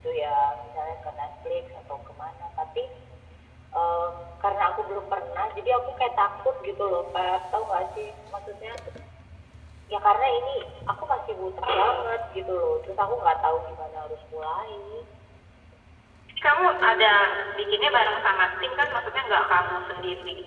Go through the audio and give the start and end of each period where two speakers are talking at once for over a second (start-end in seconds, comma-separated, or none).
none